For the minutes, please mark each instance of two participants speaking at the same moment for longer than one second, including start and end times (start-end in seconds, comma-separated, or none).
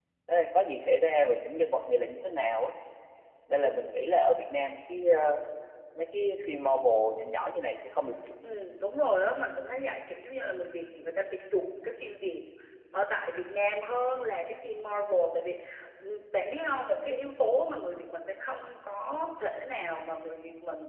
none